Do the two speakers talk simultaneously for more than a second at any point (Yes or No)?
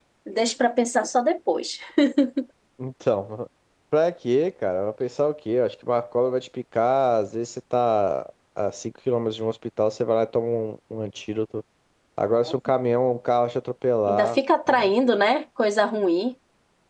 No